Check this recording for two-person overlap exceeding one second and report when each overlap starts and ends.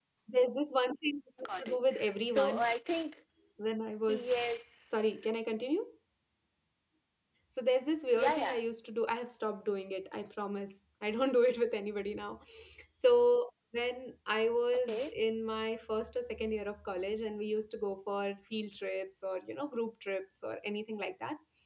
1.4-2.6

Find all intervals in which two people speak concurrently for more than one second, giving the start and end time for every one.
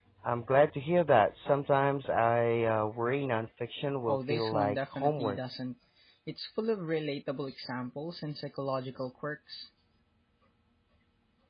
4.1-5.4

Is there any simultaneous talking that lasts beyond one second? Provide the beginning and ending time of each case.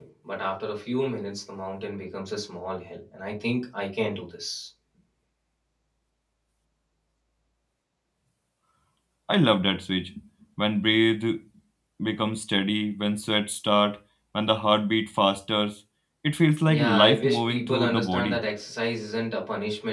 16.7-18.4

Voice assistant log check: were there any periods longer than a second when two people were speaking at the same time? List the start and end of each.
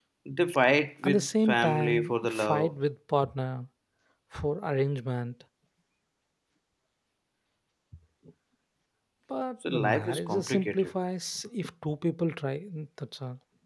1.0-2.7, 9.7-10.9

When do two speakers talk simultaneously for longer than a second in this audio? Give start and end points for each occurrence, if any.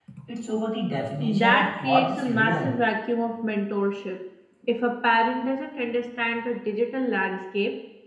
1.4-2.7

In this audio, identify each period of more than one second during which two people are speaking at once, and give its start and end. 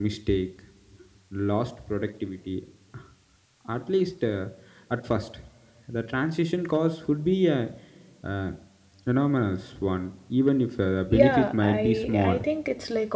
11.1-12.4

